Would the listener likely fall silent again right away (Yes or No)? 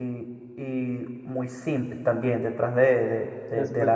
No